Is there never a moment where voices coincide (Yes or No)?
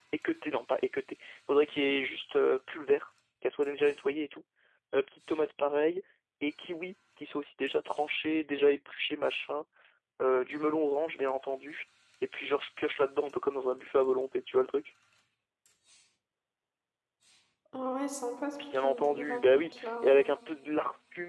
No